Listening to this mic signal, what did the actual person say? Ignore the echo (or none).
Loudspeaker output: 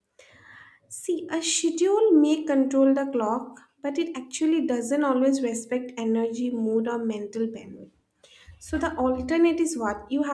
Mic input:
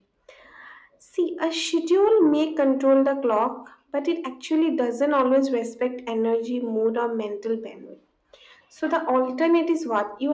none